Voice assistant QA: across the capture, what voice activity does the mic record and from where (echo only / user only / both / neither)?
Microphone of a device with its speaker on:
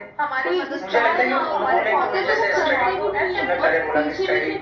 both